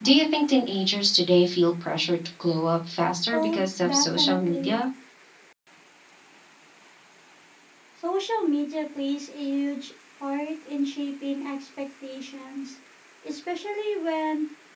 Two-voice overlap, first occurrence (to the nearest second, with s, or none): 3 s